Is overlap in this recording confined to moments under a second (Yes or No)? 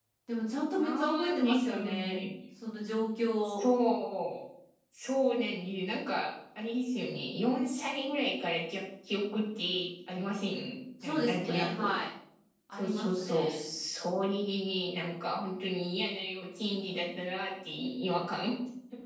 No